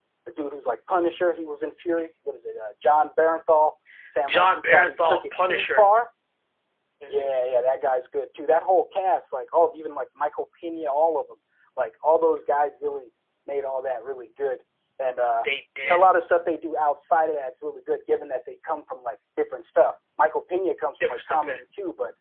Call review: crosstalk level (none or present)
present